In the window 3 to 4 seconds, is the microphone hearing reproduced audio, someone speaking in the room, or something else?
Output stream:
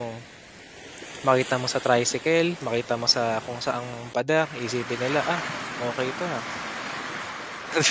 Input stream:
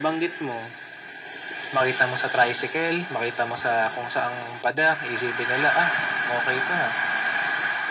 echo only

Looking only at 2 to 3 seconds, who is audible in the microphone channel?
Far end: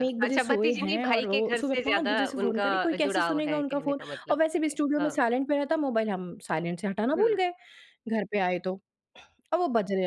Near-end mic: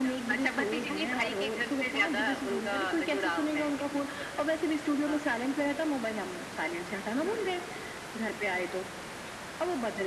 echo only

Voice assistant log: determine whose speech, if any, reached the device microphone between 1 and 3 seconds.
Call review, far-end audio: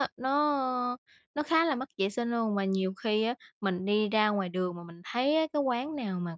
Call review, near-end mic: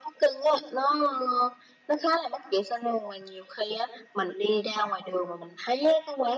echo only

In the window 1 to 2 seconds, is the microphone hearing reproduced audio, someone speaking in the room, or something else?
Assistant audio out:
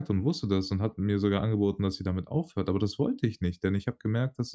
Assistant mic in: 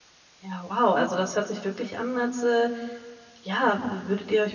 user only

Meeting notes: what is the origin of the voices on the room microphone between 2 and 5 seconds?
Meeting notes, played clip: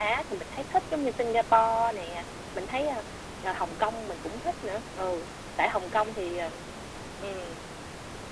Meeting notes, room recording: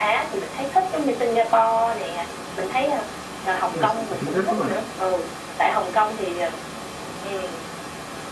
both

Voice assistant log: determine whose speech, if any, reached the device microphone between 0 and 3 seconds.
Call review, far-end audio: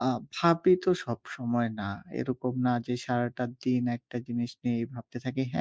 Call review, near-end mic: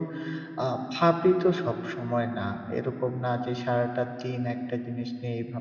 echo only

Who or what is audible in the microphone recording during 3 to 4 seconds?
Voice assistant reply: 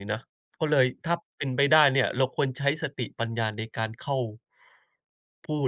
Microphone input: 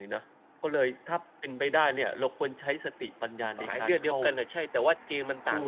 both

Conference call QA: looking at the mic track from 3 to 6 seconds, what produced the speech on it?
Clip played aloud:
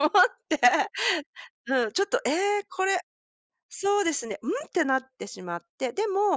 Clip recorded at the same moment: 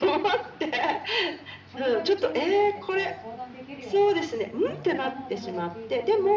both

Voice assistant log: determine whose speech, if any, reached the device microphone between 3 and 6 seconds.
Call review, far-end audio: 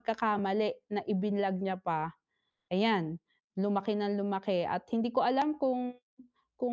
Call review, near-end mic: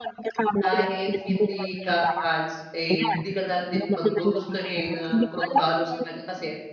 both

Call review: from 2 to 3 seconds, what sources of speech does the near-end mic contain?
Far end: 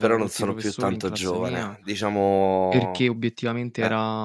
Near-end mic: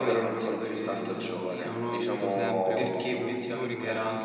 both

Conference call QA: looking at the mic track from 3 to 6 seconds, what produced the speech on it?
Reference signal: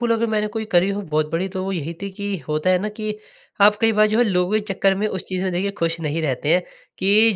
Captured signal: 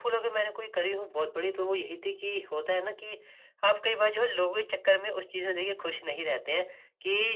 echo only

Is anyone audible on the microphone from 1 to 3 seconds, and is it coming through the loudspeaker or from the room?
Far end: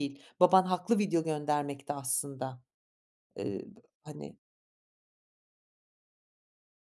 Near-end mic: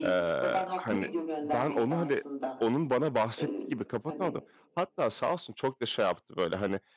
both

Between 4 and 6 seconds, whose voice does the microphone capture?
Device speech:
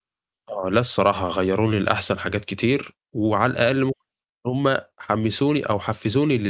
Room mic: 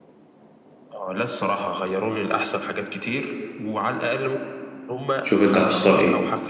both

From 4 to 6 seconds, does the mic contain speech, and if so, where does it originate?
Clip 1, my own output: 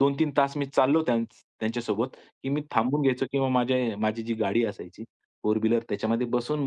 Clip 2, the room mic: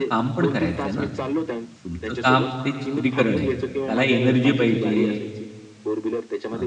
both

